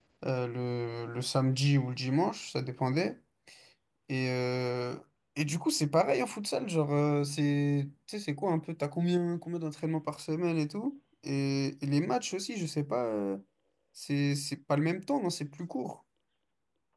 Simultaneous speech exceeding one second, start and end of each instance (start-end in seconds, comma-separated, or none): none